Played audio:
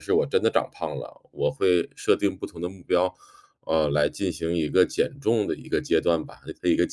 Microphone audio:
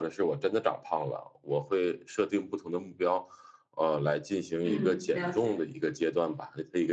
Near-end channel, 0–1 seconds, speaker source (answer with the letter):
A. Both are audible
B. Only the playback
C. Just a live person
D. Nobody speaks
B